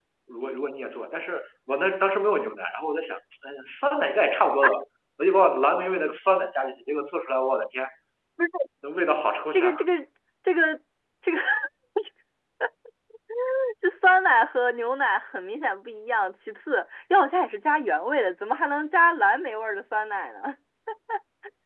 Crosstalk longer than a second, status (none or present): none